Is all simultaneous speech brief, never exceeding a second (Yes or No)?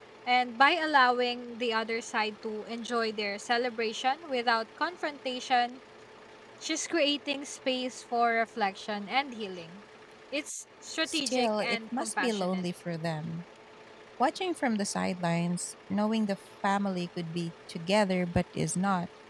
No